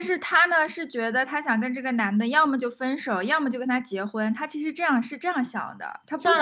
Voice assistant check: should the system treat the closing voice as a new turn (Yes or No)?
Yes